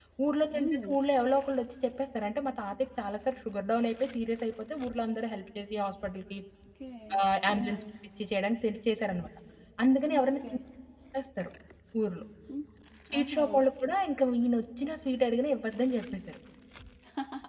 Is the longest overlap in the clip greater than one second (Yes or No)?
No